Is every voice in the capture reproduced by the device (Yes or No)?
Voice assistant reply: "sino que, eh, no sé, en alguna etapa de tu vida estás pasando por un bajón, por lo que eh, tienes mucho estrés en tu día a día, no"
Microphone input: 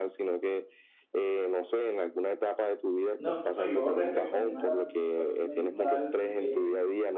No